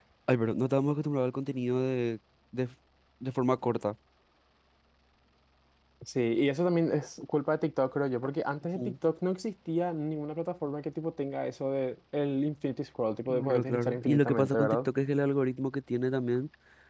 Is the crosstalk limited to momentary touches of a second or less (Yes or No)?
No